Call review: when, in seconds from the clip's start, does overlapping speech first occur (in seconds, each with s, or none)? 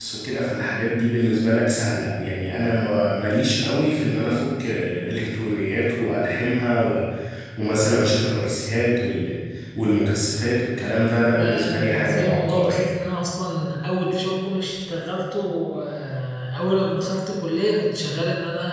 11.3 s